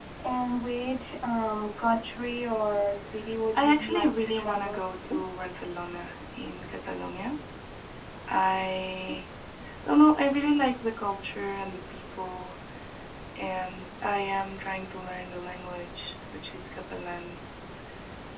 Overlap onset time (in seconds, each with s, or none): 3.5 s